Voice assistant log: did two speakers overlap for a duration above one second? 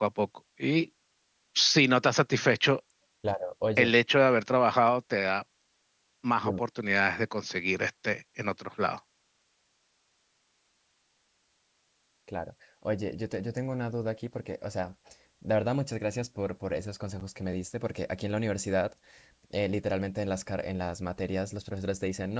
No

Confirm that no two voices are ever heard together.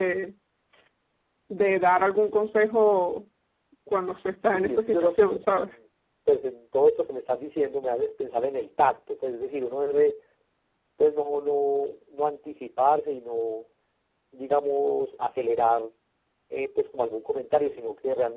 No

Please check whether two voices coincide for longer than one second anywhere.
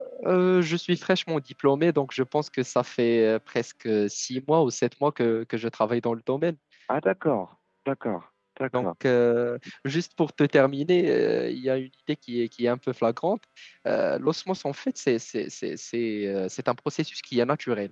No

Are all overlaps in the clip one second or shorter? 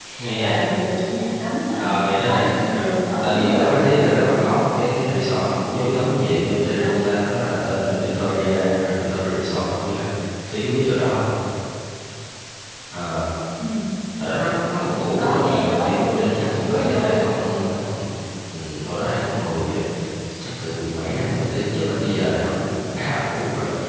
No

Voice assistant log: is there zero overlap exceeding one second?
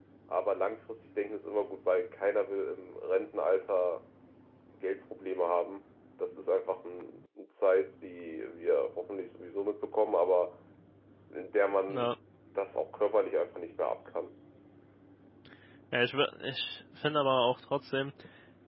Yes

